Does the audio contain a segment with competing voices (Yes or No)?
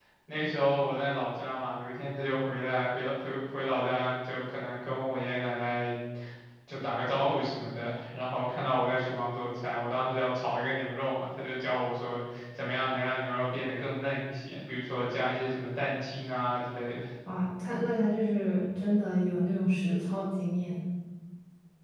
No